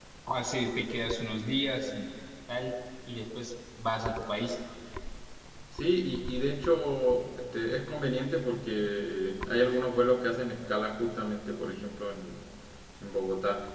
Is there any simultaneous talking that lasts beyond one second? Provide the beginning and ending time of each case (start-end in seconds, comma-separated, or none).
none